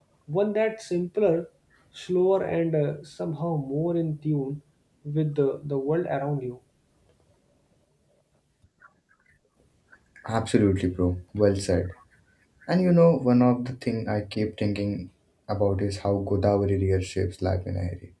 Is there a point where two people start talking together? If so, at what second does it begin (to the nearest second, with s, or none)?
none